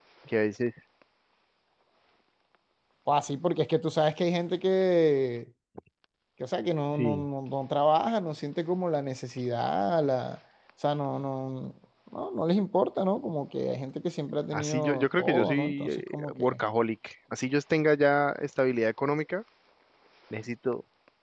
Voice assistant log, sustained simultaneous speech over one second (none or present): present